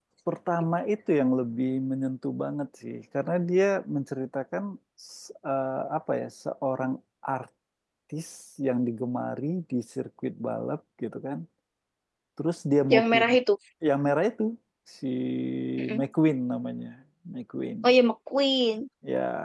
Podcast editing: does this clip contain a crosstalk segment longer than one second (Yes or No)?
No